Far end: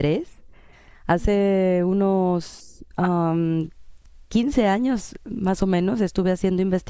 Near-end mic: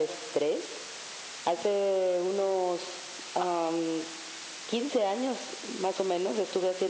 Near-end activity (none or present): none